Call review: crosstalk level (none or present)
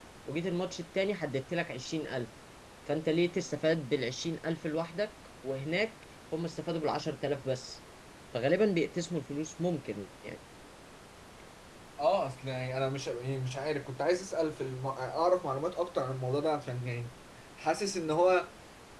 none